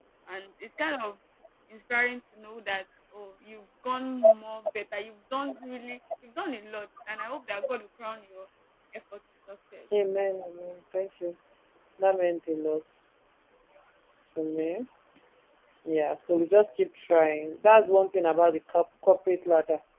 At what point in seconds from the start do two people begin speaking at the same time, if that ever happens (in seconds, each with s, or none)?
none